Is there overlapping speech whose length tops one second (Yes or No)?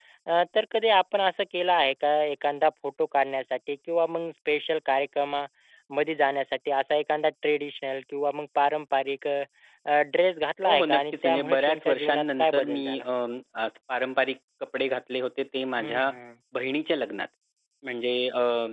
Yes